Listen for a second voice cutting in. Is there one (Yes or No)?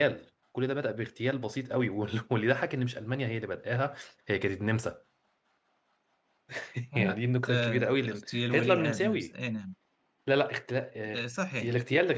Yes